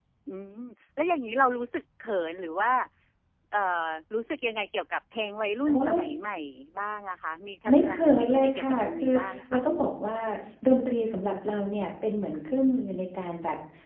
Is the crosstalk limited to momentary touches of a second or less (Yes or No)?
No